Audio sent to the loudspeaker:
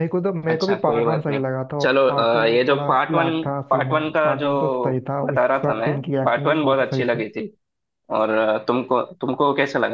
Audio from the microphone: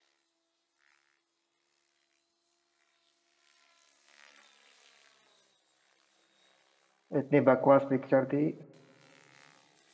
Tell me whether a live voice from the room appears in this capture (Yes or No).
Yes